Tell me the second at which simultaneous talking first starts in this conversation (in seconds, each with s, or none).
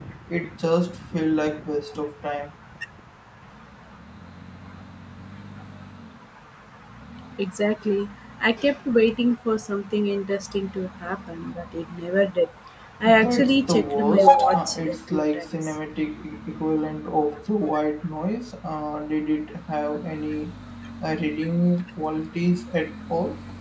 13.1 s